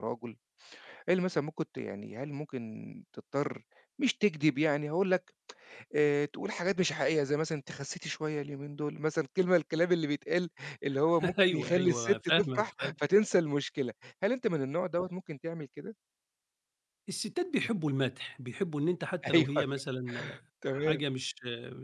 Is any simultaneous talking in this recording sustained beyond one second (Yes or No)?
Yes